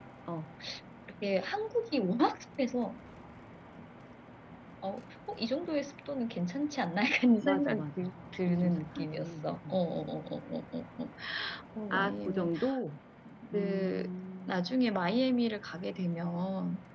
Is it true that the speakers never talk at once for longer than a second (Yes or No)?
No